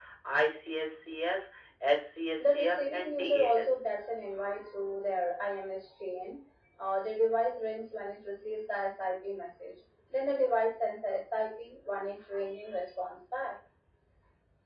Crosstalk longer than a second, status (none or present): present